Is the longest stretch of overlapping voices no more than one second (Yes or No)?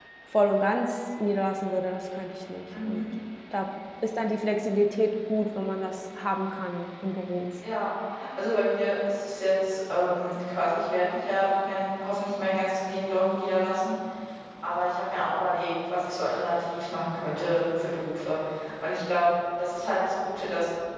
Yes